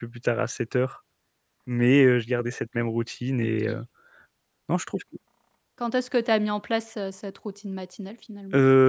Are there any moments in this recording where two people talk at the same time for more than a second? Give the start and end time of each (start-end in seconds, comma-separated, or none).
none